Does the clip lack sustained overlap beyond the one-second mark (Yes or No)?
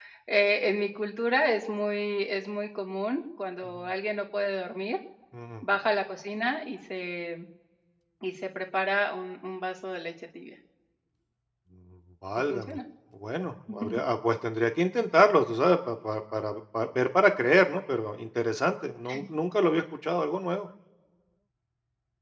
Yes